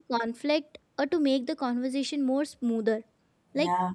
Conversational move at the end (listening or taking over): listening